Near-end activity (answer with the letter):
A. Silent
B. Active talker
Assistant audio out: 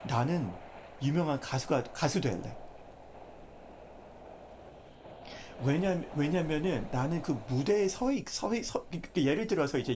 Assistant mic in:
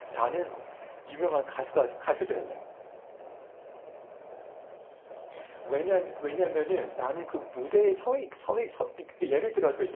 A